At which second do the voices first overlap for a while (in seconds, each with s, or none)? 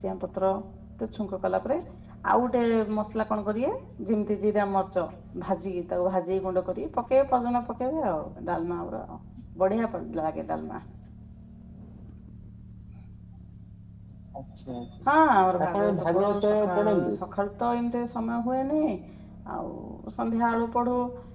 15.7 s